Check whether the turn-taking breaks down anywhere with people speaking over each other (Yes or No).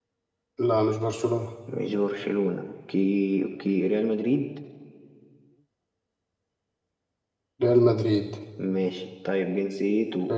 No